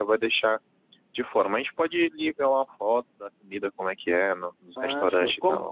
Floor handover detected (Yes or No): Yes